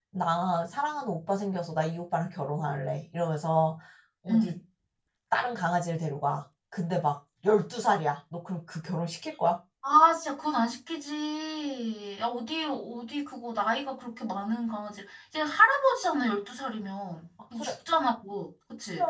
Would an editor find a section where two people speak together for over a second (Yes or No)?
No